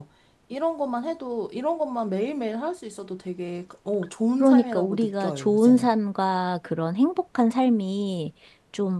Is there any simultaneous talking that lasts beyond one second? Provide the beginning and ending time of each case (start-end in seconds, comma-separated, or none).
4.4-5.9